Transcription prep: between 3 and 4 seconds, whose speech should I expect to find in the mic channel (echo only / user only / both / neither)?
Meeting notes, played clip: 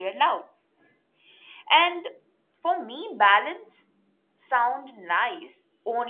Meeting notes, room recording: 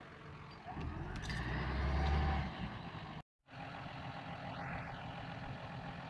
neither